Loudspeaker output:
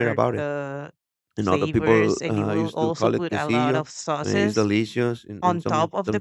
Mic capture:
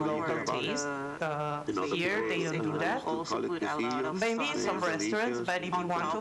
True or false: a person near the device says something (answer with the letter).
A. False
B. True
B